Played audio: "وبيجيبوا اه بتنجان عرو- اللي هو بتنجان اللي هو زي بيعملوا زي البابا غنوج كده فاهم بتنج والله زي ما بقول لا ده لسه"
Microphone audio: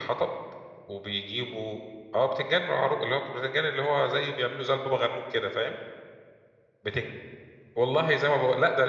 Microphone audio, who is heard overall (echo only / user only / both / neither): echo only